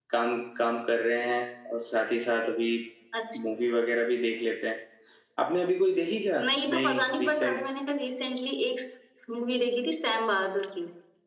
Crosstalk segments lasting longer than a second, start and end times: 6.4-7.6

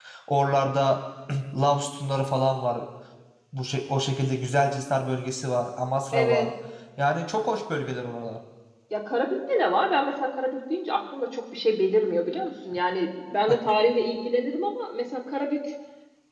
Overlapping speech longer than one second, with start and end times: none

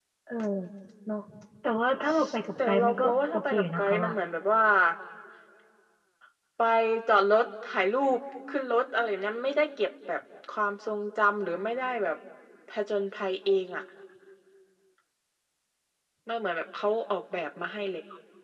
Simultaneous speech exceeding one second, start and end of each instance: 2.6-4.1

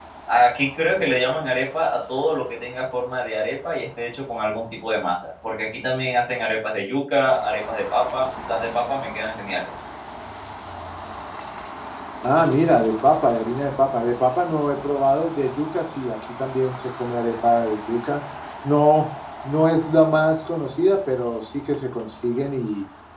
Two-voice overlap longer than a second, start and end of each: none

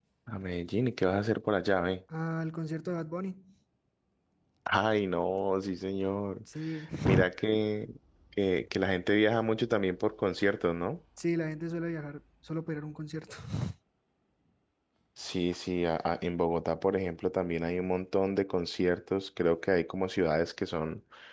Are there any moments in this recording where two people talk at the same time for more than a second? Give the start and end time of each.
none

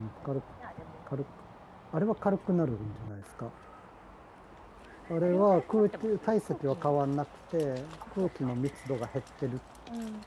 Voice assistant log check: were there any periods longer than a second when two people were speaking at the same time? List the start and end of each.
5.2-6.9

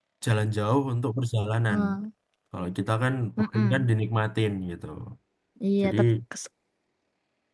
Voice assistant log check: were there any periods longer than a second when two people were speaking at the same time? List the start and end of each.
none

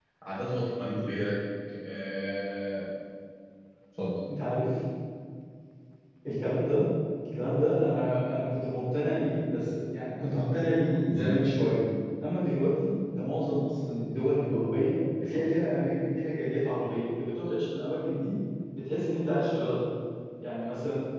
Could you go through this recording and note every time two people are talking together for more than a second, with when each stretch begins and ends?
none

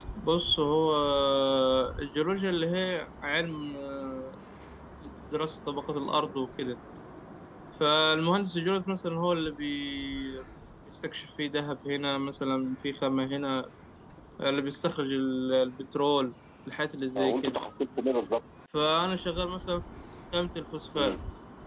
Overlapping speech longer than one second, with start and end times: none

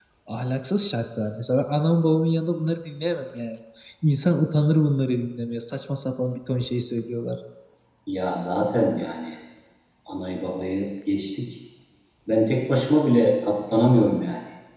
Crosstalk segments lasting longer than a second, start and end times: none

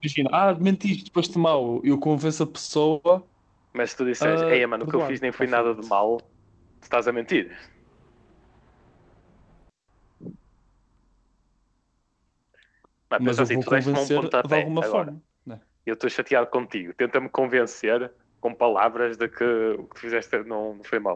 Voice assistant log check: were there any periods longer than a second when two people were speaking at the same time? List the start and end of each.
4.2-5.8, 13.2-15.1

